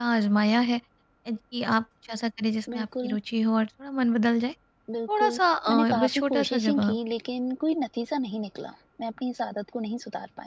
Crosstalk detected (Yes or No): Yes